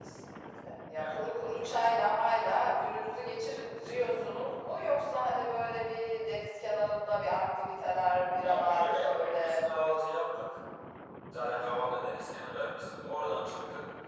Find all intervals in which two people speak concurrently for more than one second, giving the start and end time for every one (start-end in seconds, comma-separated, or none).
8.4-9.6